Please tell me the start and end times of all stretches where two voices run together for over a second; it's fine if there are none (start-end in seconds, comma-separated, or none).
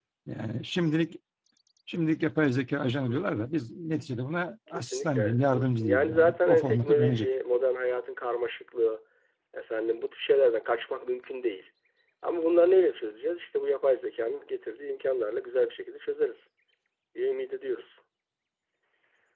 4.7-7.3